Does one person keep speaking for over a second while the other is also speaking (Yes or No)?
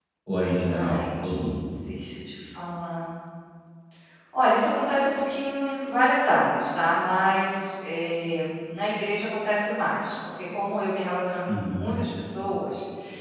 No